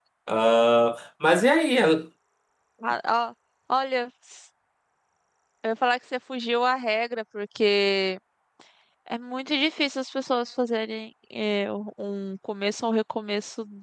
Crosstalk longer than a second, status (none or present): none